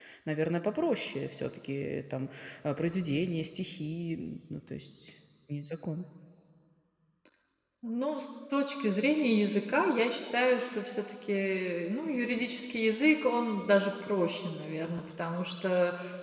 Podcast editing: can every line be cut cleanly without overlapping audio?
Yes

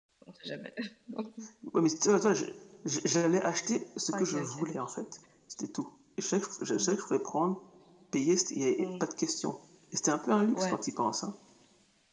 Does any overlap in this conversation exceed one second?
No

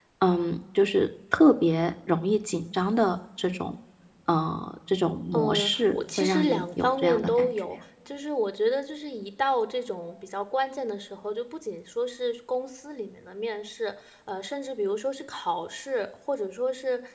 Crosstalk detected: Yes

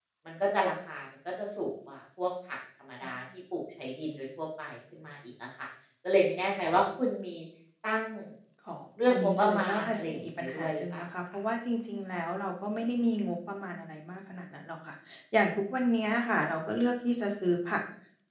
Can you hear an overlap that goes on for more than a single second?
Yes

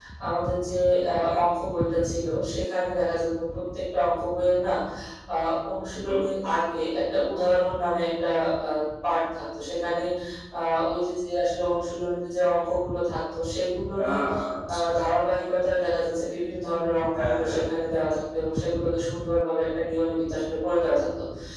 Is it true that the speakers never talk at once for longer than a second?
Yes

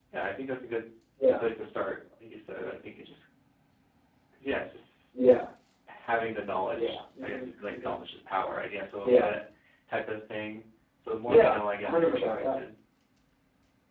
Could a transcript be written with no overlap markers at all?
No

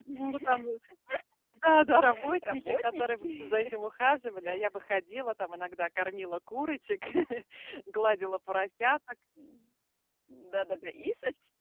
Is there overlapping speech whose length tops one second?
Yes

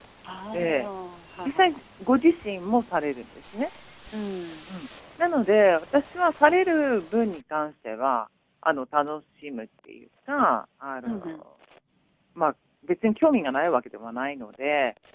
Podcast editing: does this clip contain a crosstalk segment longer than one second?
No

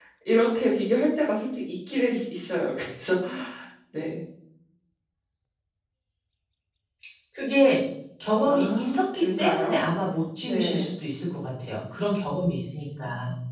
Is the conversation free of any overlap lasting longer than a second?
No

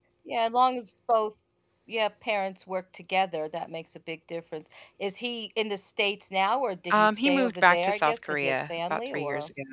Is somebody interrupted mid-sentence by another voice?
Yes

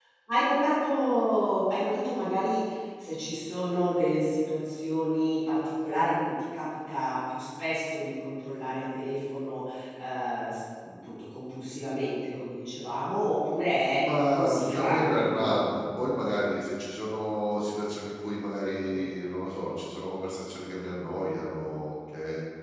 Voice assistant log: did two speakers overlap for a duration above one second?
Yes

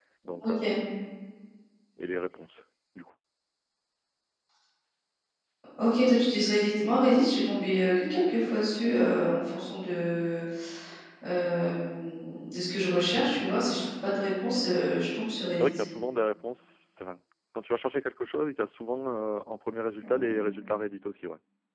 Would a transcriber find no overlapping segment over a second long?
Yes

